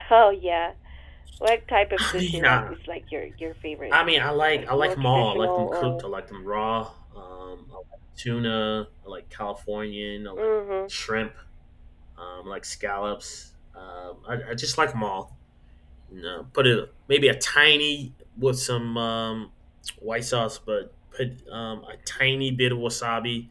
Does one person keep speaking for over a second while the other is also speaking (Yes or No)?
Yes